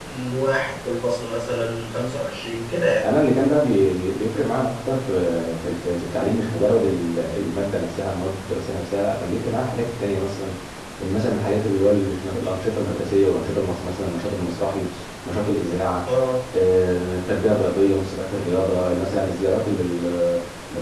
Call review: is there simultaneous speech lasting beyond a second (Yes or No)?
No